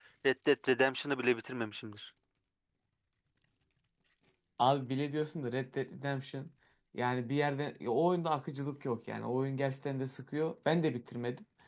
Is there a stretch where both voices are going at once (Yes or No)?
No